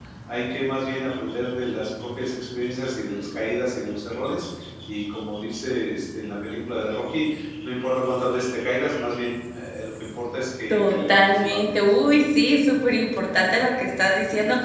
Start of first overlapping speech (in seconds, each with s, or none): 10.7 s